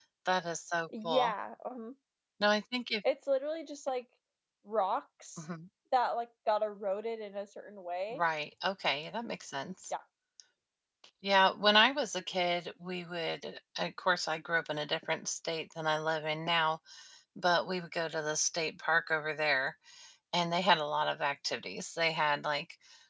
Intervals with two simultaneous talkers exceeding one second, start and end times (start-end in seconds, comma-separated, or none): none